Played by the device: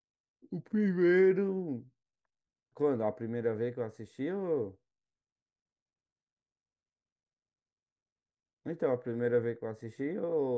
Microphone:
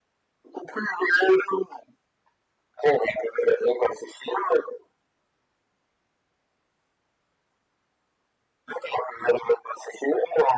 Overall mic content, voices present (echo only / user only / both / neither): echo only